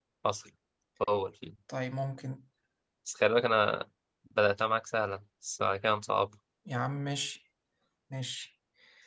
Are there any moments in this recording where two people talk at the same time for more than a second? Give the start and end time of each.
none

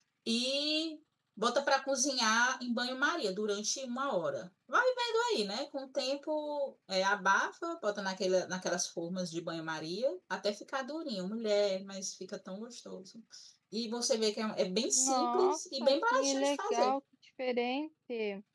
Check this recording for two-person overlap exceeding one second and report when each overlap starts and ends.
14.9-16.9

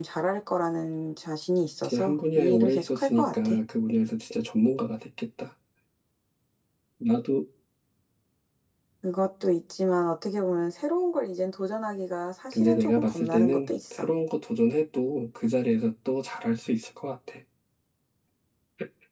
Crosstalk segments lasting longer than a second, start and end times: 1.8-3.5, 12.5-14.1

